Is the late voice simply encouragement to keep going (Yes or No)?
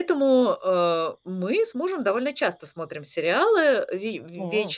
Yes